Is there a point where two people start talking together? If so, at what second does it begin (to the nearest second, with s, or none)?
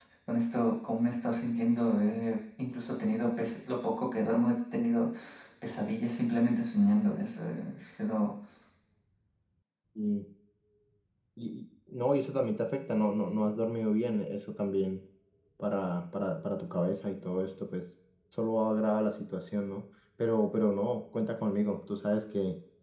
none